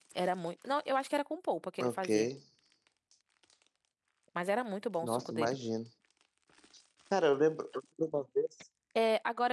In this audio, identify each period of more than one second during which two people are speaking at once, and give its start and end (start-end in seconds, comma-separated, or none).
none